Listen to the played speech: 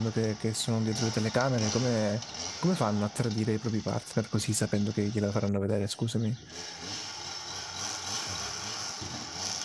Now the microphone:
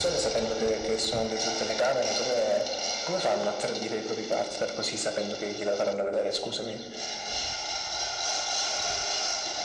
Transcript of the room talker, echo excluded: none

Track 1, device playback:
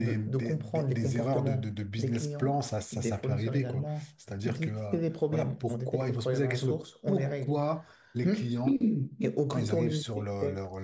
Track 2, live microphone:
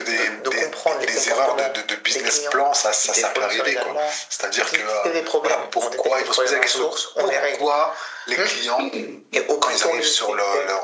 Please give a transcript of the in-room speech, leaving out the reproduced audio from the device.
none

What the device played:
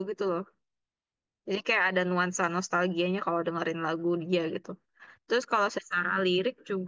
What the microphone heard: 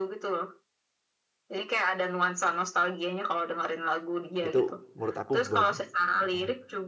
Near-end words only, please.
itu menurut aku bagus Heeh.

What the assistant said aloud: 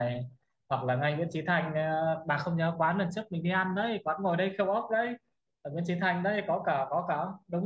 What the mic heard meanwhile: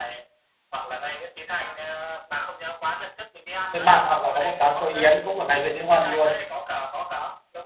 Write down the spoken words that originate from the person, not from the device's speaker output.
xôi mặn hoặc là có một quán xôi Yến cũng ở ngay Nguyễn Hữu Huân luôn

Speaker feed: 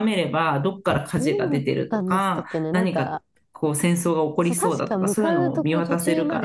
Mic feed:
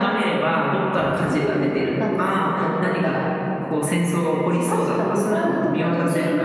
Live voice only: none

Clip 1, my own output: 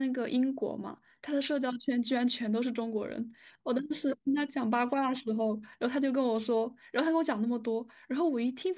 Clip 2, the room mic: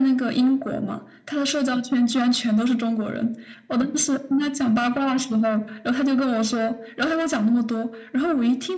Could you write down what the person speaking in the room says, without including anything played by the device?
none

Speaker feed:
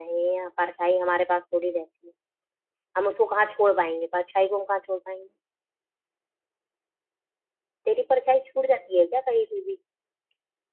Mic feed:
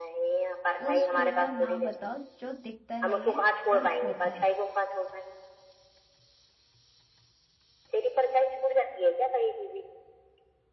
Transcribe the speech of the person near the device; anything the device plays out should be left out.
उस फूल का नाम बताओ जो दिखता नहीं है पर होता है

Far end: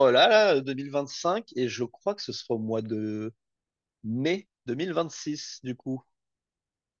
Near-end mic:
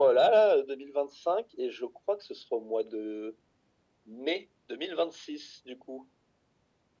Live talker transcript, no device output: none

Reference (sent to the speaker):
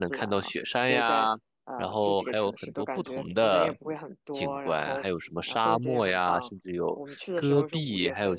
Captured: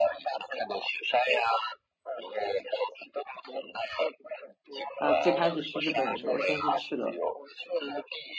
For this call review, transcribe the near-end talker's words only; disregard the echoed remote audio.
呃，最开始去日本的时候，先是去了，

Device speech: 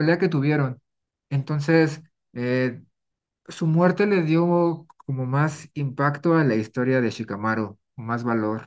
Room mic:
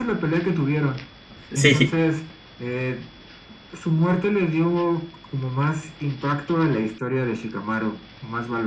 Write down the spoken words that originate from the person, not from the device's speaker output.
Sí.

